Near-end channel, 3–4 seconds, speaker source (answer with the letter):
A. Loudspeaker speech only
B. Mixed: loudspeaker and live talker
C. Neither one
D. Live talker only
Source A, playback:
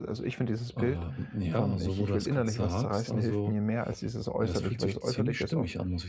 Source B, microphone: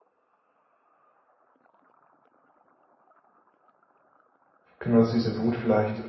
C